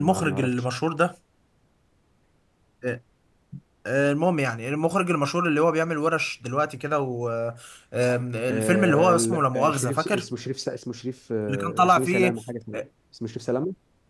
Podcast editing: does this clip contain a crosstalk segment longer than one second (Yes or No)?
Yes